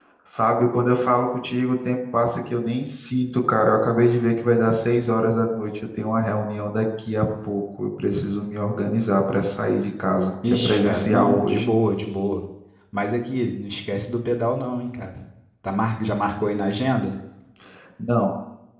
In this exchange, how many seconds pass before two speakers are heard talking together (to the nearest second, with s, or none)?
10 s